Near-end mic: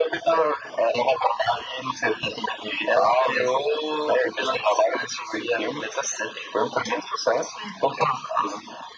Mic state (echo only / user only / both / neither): echo only